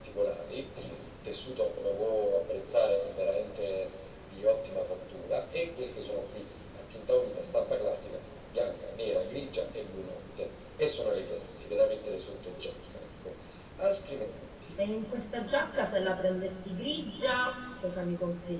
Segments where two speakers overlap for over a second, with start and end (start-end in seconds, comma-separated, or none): none